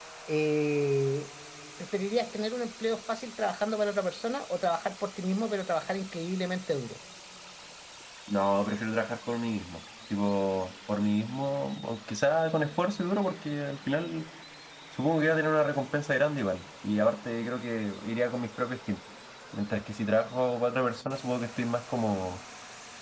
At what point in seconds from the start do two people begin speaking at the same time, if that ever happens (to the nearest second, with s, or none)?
none